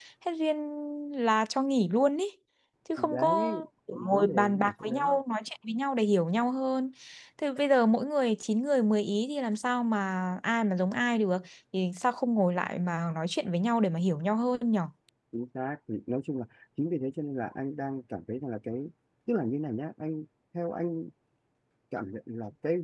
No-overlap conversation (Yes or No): No